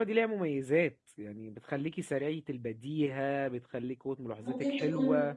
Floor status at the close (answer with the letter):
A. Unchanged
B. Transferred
B